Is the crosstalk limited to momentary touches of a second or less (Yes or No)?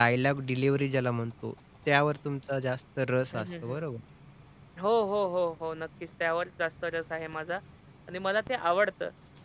Yes